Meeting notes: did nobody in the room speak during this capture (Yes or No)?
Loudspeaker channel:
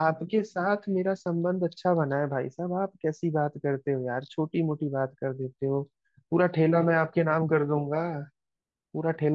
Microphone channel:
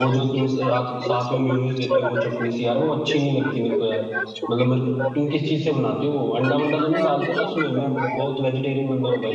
No